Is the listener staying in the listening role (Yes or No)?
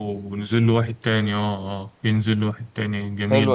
No